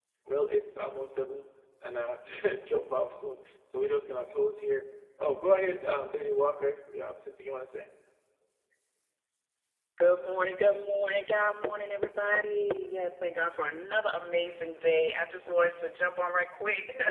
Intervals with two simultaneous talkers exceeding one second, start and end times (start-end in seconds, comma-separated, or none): none